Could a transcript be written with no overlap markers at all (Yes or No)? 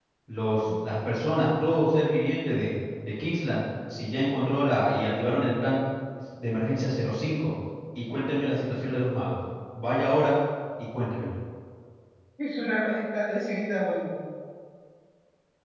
Yes